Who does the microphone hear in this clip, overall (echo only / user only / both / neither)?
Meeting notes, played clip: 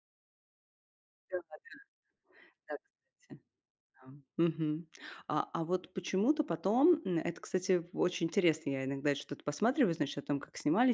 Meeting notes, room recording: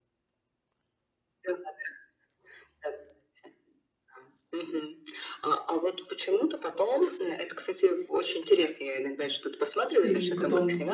both